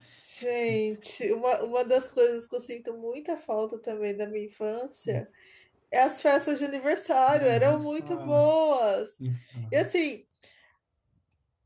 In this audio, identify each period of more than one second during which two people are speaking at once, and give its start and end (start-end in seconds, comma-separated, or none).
7.3-8.5